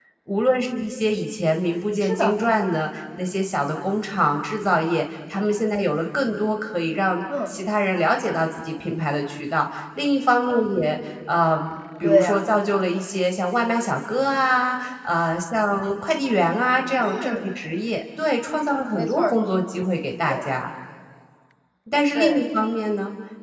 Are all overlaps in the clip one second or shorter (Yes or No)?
Yes